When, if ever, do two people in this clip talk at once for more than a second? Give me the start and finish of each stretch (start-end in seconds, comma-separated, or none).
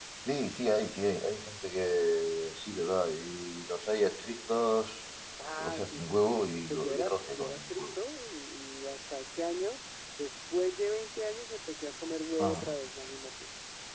5.6-8.0